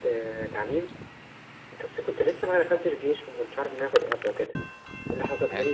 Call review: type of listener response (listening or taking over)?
listening